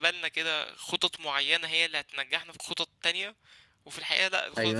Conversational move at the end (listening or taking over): taking over